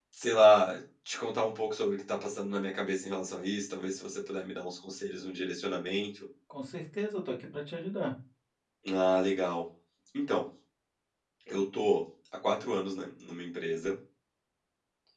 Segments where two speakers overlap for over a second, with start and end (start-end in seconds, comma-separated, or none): none